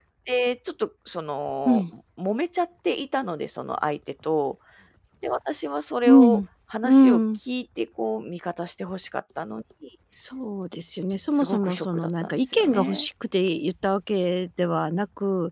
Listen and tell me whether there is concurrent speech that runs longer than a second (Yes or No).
Yes